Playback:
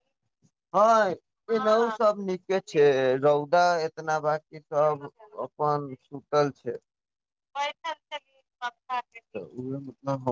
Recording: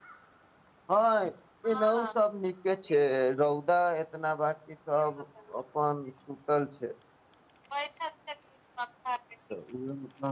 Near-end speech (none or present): none